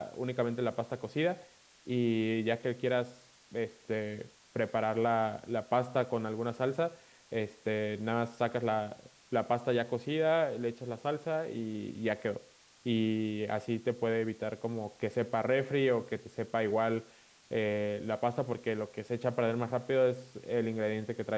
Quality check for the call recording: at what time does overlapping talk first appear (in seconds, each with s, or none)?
none